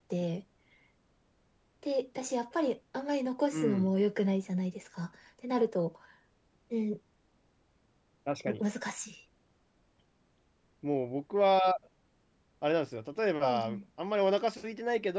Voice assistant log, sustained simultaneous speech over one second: none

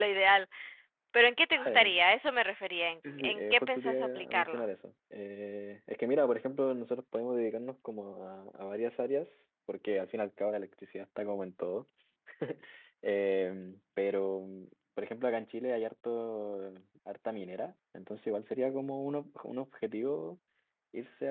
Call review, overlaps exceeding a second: present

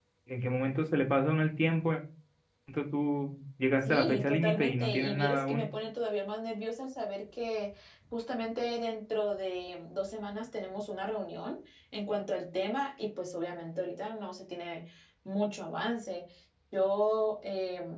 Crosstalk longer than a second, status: present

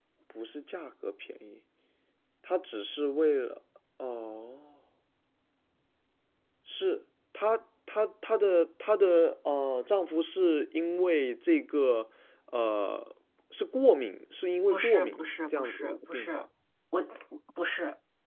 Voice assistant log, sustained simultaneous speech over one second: present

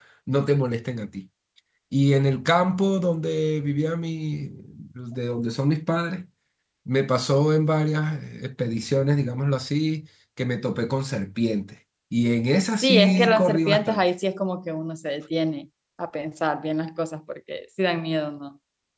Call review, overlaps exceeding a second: present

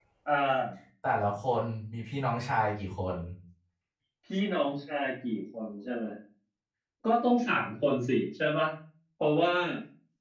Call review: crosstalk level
none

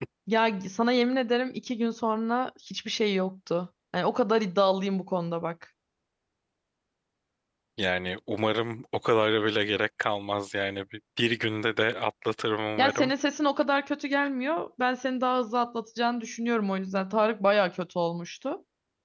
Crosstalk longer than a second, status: none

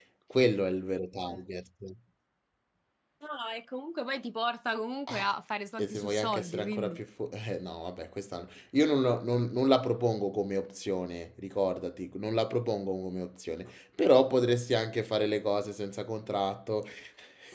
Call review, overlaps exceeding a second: present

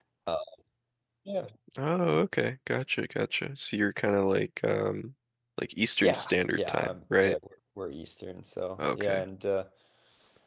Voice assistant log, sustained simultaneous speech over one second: present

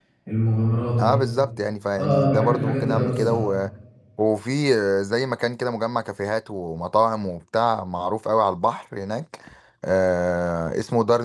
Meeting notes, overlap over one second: present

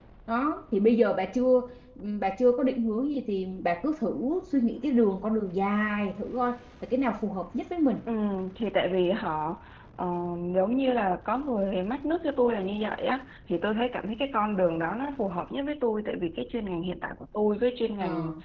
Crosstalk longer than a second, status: none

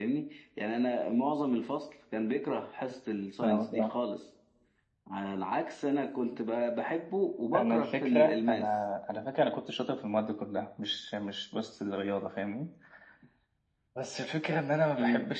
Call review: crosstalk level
present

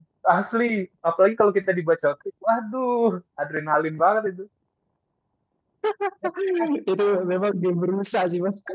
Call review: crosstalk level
none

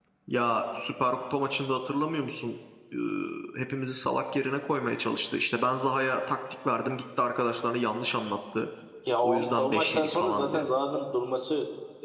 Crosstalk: present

